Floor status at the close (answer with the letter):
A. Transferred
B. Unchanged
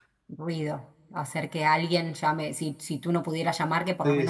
A